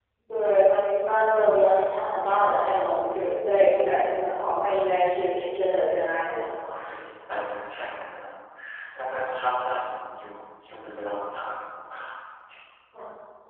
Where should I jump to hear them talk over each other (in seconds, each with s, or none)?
none